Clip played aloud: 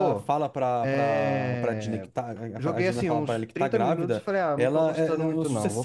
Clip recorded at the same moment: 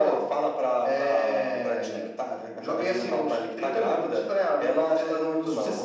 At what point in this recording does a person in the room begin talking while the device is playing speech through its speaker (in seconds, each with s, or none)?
none